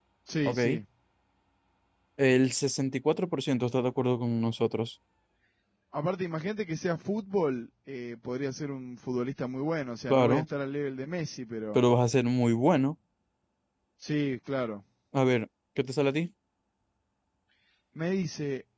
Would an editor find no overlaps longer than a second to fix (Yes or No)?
Yes